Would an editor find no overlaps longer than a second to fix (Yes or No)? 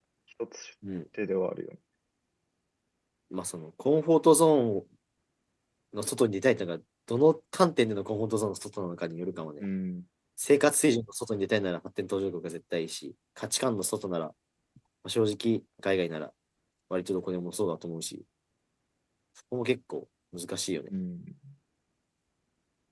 Yes